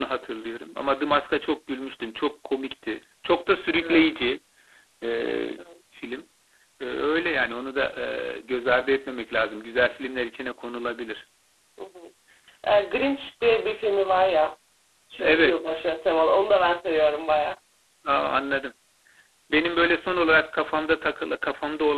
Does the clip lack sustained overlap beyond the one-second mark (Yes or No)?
Yes